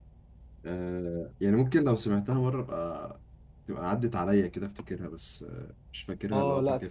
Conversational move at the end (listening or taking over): taking over